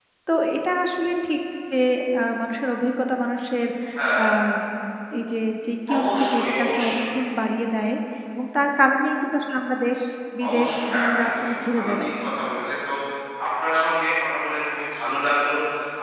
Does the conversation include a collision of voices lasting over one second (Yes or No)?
Yes